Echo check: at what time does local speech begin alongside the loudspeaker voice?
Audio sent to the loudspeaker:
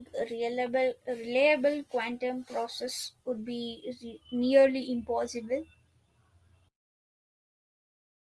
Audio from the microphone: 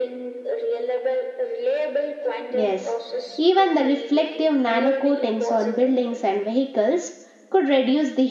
2.5 s

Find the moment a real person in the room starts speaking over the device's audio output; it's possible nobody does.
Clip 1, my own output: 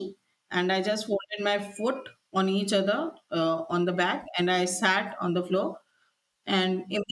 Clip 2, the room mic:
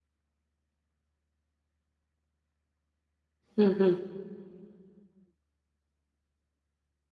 3.6 s

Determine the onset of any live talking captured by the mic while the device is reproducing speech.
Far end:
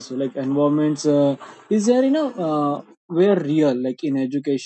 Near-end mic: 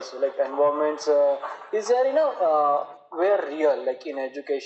none

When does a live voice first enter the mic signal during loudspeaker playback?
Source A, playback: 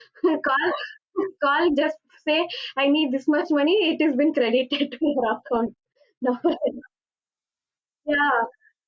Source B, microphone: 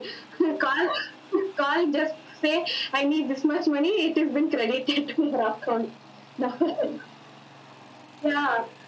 none

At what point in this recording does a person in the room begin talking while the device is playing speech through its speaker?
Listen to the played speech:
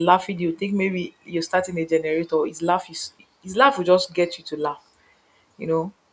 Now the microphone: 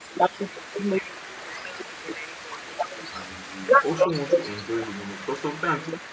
3.1 s

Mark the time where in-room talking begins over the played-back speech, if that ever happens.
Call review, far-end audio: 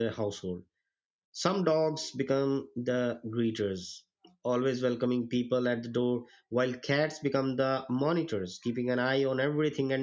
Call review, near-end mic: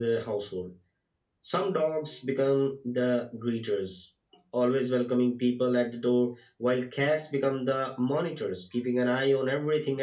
none

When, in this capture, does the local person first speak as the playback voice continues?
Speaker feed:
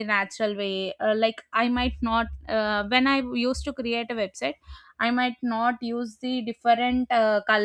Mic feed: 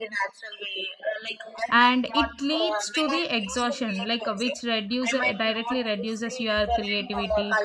1.7 s

